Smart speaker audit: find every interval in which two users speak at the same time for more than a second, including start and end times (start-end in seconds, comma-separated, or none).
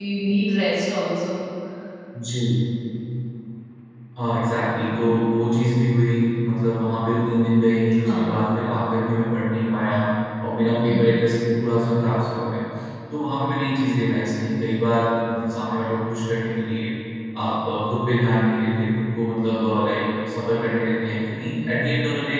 none